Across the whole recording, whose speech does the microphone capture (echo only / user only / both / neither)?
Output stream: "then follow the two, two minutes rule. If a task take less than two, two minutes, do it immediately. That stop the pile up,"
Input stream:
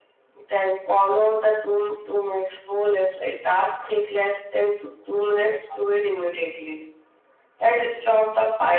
echo only